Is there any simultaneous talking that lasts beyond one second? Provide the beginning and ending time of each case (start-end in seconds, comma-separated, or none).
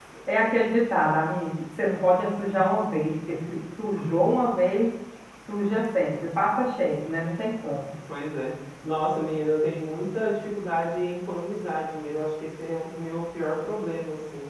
none